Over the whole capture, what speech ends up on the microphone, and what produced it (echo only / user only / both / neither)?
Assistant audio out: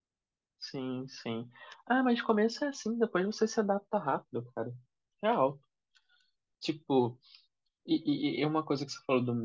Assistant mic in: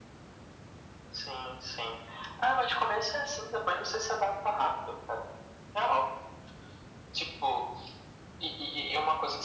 echo only